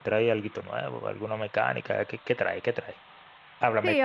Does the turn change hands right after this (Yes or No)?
Yes